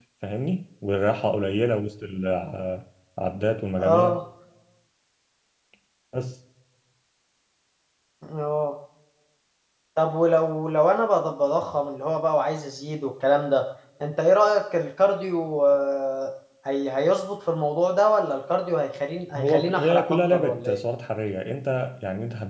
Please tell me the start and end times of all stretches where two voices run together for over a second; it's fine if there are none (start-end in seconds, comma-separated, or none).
19.4-20.8